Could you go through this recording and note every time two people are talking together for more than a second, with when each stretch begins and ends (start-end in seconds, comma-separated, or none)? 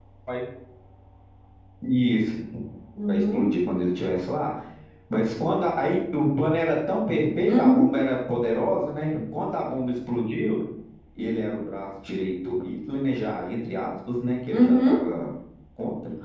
none